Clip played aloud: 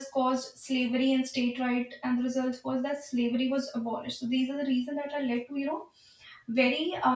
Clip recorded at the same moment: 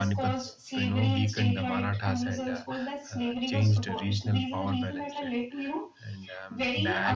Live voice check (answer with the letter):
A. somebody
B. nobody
A